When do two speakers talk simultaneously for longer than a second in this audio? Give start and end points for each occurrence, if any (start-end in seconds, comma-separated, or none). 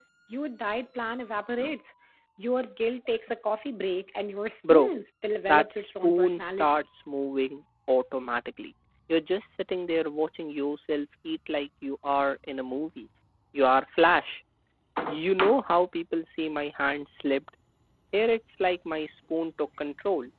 5.5-6.8